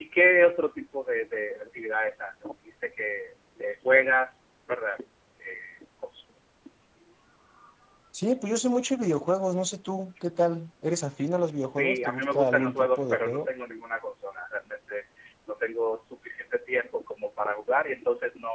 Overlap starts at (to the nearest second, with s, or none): 12 s